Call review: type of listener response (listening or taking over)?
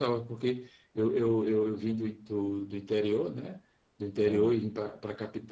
listening